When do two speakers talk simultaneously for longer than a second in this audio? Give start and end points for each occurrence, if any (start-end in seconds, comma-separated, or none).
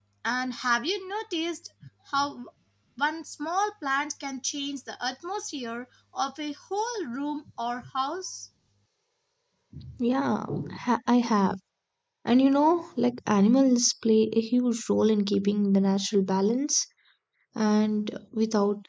none